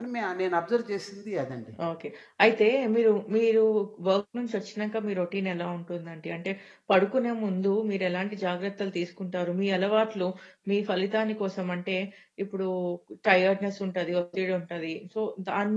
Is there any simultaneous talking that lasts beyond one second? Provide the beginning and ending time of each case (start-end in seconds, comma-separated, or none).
none